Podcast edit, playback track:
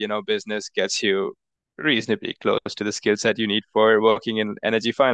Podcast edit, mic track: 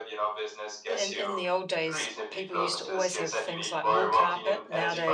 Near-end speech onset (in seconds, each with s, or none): 0.9 s